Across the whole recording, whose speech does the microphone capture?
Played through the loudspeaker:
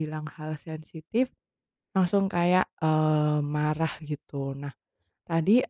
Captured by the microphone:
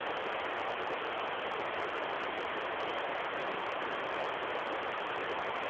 neither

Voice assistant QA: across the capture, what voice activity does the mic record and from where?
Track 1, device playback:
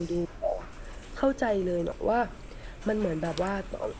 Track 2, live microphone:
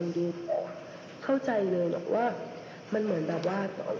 echo only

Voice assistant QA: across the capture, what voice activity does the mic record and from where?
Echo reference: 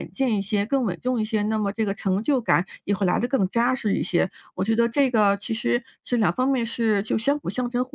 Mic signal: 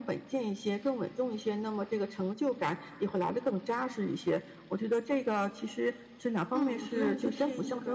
both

